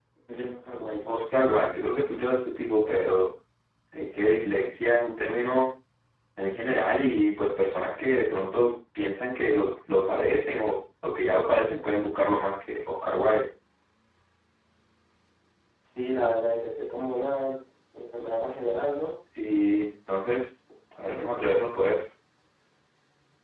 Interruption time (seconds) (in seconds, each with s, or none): none